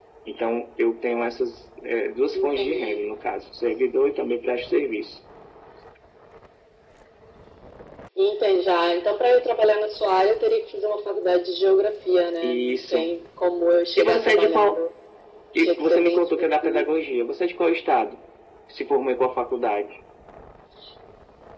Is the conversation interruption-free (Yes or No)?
No